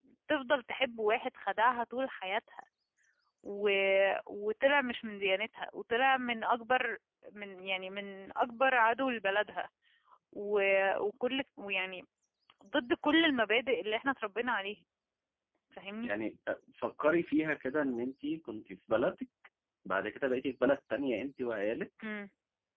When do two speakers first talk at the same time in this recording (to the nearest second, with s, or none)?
none